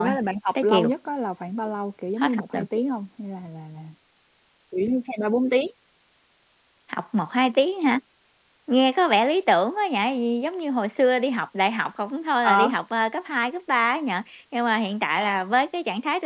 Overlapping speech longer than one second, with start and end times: none

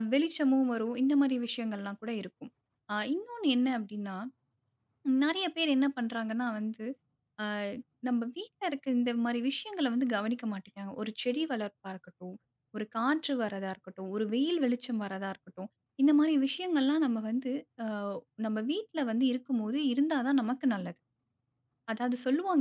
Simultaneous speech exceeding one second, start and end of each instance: none

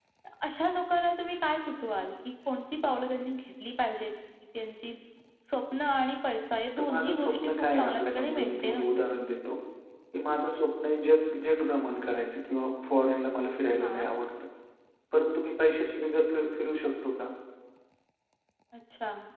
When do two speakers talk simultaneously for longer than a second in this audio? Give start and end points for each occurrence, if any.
6.8-9.1

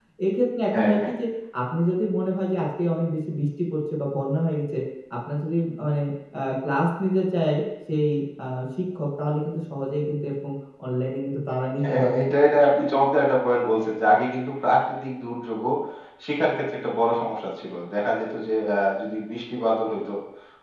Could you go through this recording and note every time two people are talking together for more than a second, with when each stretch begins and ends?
none

